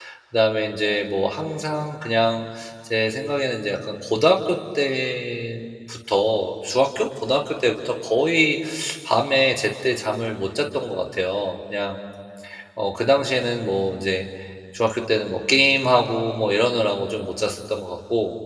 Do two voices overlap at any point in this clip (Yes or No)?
No